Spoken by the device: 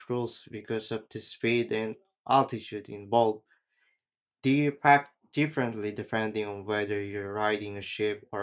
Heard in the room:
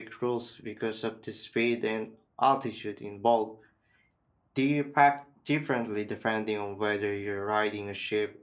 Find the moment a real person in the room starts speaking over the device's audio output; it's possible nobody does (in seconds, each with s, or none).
none